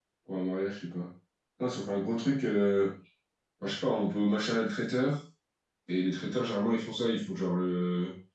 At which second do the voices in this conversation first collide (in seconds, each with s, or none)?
none